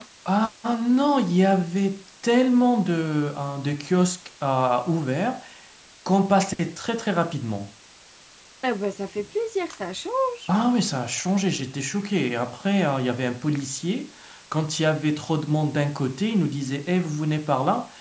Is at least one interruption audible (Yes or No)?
No